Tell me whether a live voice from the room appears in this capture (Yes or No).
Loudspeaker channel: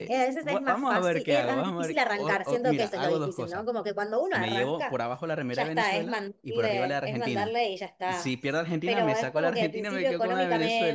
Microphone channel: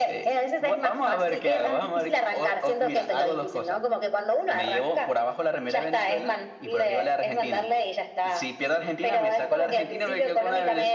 No